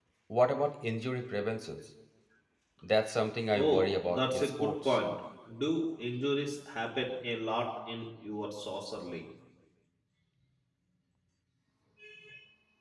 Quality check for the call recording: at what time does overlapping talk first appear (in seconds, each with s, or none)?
3.6 s